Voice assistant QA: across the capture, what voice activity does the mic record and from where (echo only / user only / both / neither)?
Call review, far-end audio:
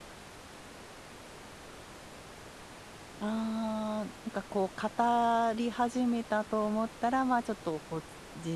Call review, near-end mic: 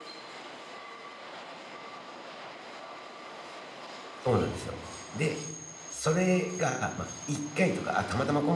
user only